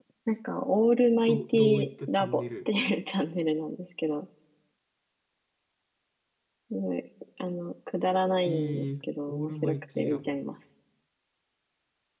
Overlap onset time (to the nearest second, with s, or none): 1 s